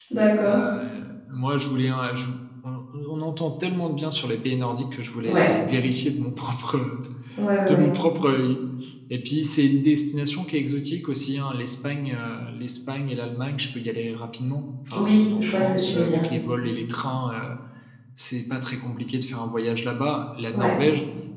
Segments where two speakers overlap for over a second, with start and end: 14.9-16.2

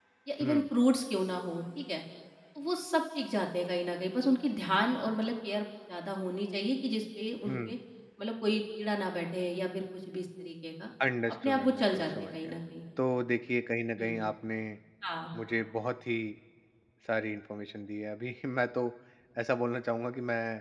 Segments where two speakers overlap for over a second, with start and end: 11.3-12.5

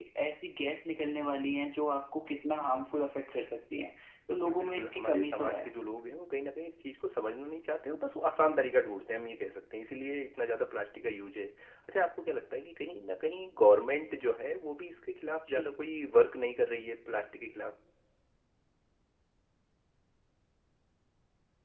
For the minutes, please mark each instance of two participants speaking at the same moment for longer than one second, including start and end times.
4.3-5.6

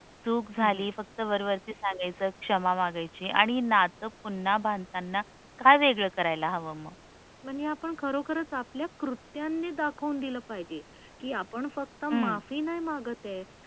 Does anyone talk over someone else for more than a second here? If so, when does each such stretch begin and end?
none

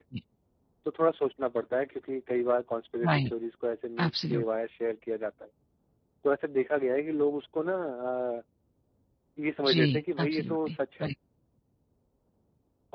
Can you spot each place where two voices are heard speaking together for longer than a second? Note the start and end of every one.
9.7-11.1

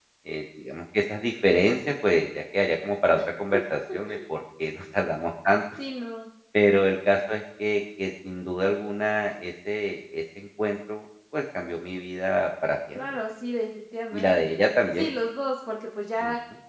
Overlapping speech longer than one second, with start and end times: none

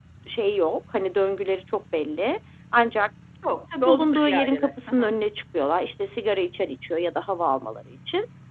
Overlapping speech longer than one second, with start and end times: 3.8-5.1

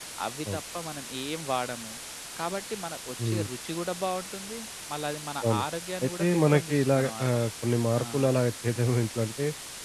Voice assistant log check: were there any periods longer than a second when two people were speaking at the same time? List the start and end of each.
6.0-7.2

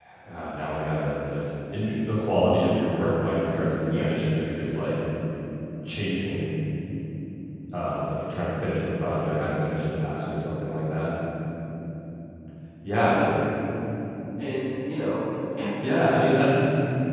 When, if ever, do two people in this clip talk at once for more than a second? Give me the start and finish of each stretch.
none

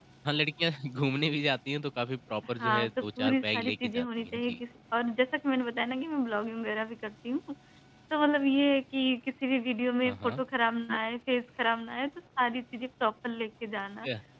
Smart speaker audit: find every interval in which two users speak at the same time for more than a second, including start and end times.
2.6-4.6

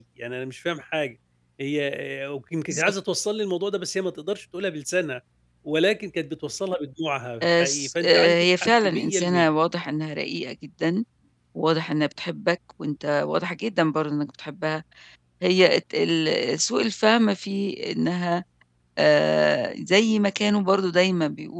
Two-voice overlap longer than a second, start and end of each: 7.4-9.5

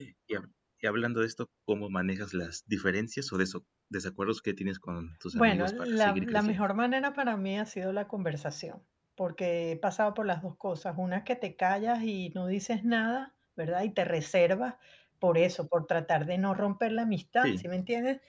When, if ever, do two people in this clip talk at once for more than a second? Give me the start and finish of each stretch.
5.3-6.6

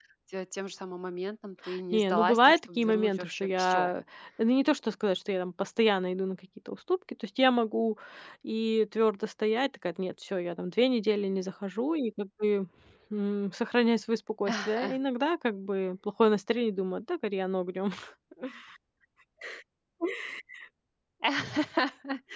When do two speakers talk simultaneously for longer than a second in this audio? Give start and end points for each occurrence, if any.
1.9-3.9

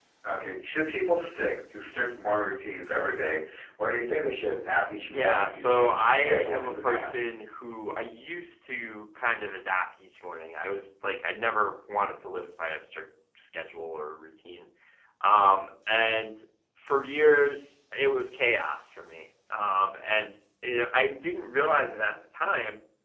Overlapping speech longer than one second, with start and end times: 5.1-7.3

